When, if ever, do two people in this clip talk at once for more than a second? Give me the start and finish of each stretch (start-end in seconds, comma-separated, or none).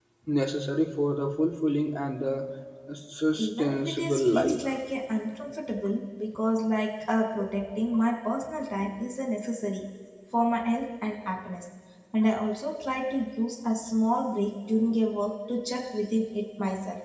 3.4-4.6